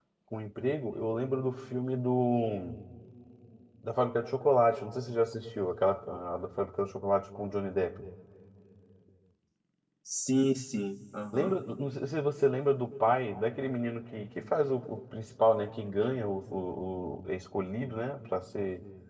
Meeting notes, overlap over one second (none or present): none